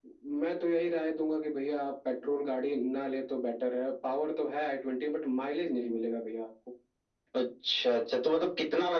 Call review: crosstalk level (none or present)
none